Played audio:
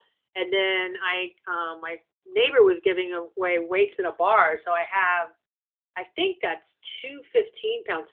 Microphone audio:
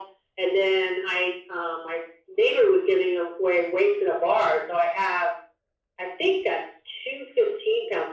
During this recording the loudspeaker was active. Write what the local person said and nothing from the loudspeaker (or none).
none